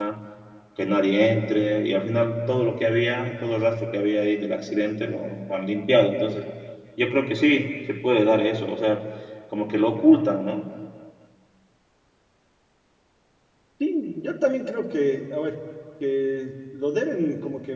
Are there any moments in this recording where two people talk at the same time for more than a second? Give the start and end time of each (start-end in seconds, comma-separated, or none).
none